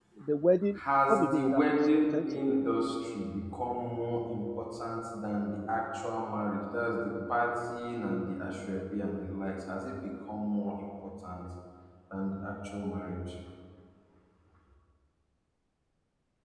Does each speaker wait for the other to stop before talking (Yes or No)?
No